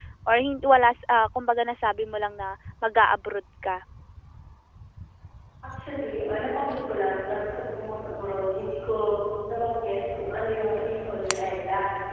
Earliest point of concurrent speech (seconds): none

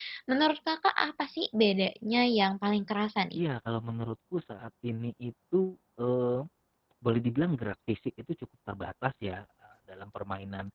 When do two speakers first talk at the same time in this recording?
none

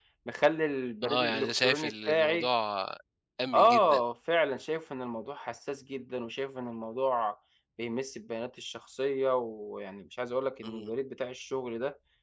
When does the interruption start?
1.0 s

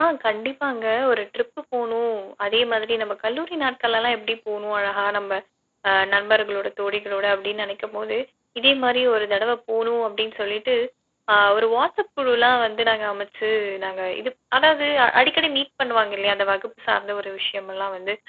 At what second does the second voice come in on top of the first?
none

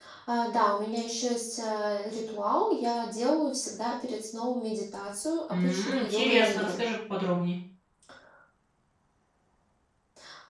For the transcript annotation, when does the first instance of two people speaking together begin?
5.5 s

